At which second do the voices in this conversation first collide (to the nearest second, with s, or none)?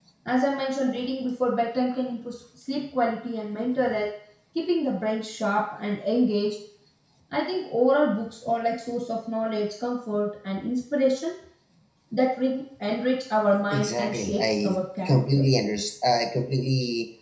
14 s